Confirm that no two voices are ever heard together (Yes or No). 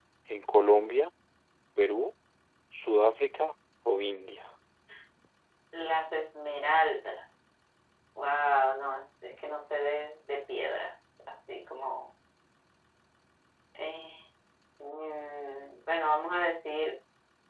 Yes